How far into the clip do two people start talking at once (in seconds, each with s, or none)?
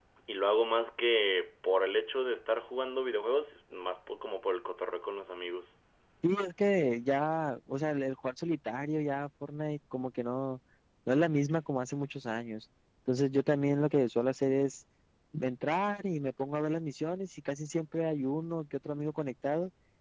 none